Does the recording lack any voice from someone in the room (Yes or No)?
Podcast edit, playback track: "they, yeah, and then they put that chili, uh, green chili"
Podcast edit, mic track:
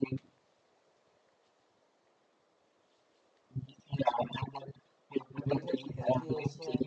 No